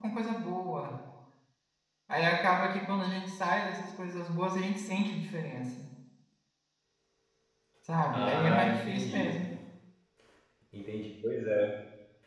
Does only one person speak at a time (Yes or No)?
No